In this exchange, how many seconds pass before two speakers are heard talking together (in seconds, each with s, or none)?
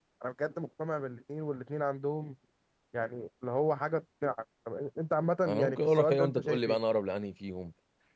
5.5 s